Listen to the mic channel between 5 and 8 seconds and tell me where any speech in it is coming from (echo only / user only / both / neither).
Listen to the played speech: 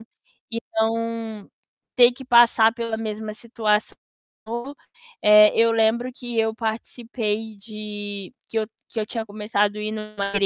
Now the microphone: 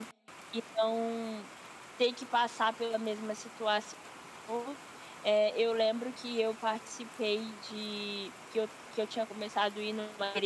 echo only